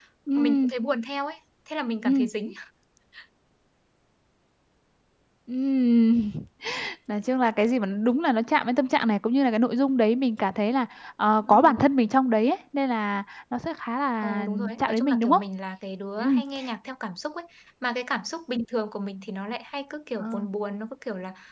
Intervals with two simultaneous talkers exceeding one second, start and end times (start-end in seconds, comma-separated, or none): 14.2-15.4